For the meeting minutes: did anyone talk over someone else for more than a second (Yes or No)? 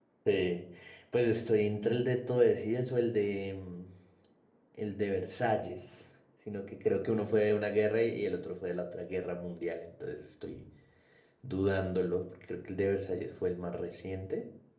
No